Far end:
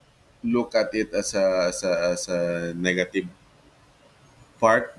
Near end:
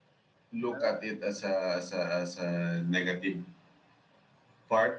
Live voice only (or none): Yeah.